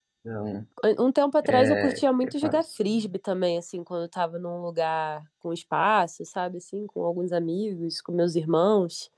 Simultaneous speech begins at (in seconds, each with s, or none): 1.5 s